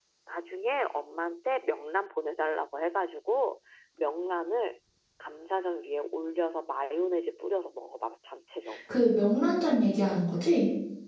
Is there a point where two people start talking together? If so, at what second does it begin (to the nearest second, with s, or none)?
none